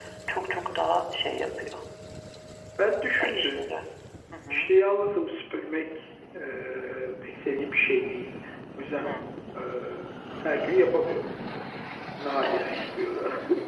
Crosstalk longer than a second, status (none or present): none